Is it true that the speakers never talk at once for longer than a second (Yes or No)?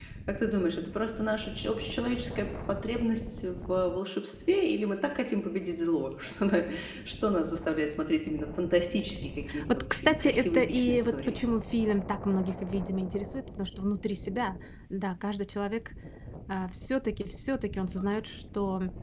No